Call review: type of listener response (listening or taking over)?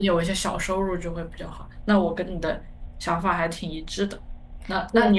listening